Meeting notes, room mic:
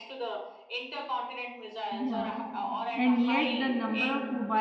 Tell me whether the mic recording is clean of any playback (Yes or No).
No